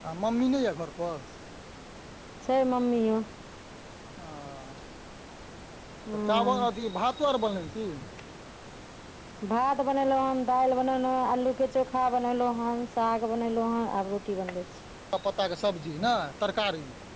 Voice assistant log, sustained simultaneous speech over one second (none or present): none